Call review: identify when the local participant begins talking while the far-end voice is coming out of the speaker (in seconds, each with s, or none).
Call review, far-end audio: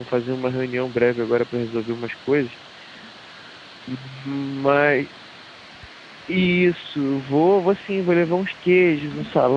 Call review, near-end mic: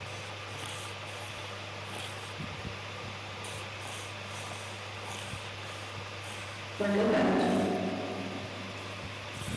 6.8 s